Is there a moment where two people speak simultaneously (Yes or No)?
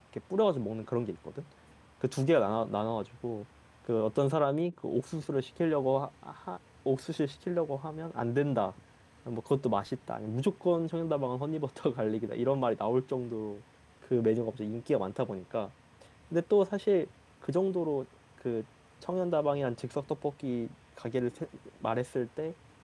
No